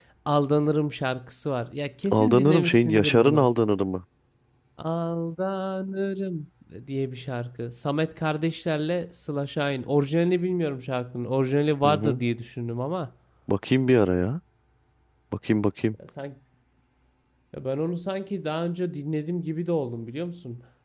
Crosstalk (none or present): present